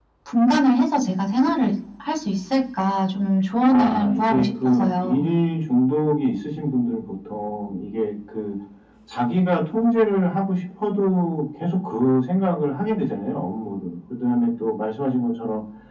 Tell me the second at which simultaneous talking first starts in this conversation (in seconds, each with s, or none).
3.7 s